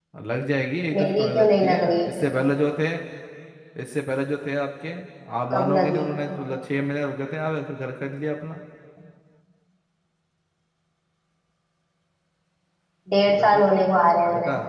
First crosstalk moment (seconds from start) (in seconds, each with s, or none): 1.0 s